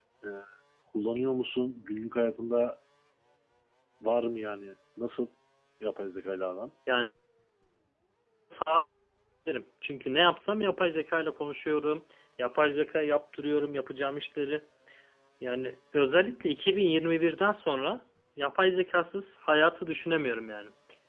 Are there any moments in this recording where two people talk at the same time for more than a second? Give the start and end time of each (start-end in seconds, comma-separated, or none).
none